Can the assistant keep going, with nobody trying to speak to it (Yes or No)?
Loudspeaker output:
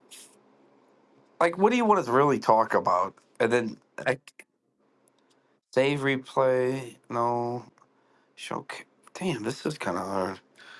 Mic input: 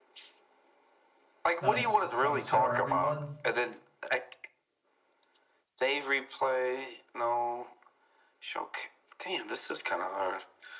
No